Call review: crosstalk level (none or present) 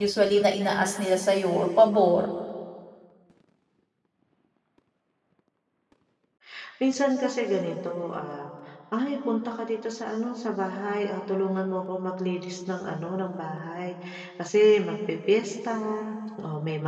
none